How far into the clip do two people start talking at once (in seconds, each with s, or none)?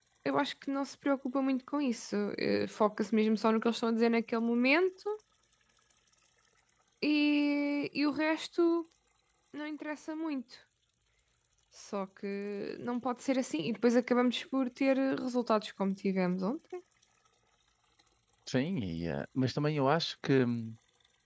none